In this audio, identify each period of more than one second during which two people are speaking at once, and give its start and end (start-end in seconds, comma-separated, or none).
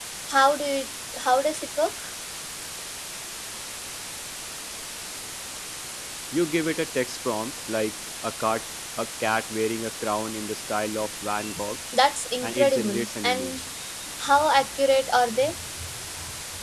12.4-13.6